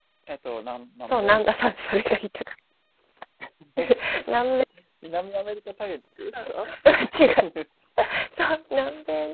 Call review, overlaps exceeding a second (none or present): none